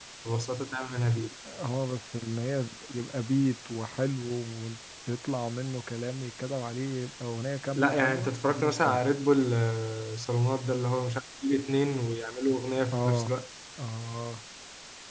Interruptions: present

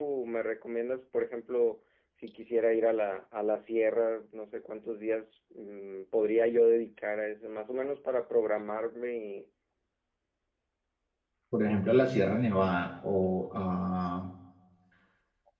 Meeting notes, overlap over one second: none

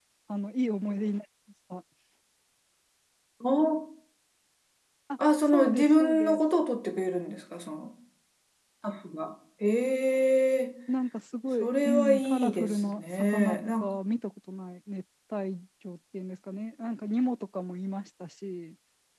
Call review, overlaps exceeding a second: present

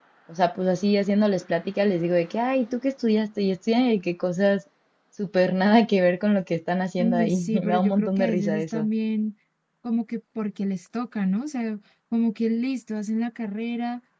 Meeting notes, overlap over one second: present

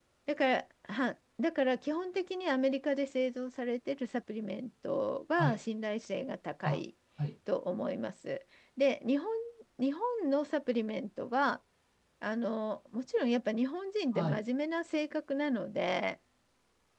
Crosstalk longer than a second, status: none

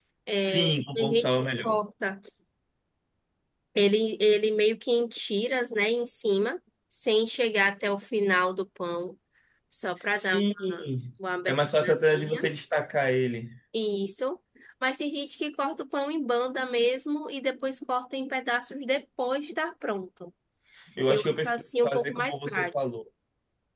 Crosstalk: present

